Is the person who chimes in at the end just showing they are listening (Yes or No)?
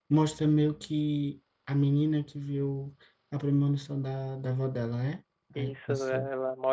No